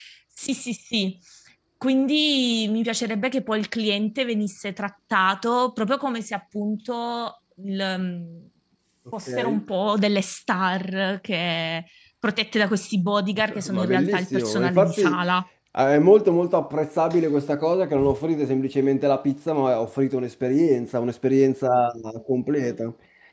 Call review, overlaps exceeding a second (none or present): present